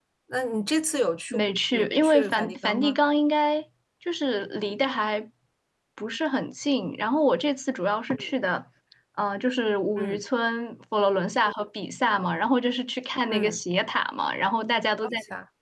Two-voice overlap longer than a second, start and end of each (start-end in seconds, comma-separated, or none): 1.3-3.0